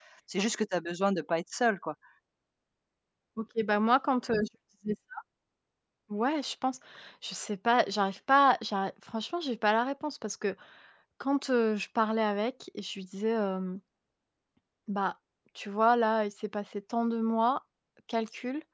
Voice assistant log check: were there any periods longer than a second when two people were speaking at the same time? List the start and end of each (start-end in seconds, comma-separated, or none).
none